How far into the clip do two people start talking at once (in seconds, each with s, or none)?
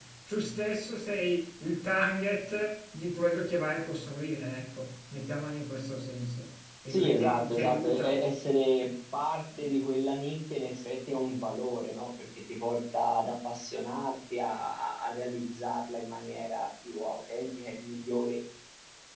6.9 s